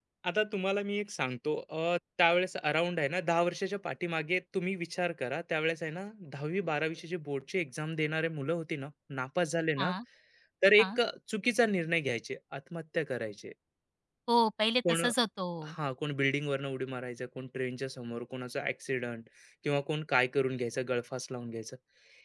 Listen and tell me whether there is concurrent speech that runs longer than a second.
No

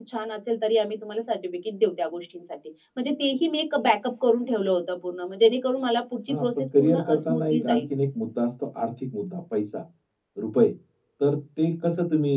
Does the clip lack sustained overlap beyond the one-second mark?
No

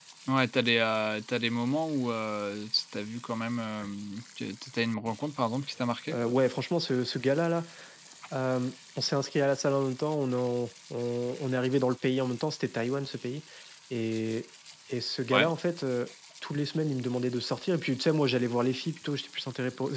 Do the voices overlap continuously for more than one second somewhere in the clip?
No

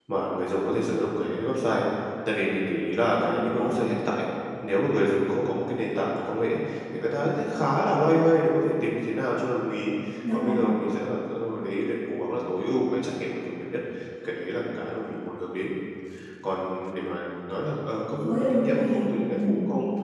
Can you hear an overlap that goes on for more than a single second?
Yes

